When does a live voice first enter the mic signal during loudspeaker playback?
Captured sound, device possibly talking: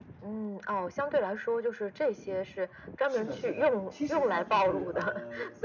3.1 s

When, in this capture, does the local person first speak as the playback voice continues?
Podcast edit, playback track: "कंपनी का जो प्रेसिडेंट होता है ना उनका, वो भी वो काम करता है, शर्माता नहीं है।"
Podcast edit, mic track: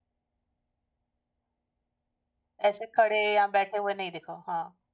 2.7 s

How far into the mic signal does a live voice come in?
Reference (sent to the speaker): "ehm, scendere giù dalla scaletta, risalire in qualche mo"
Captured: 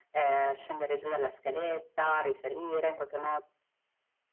none

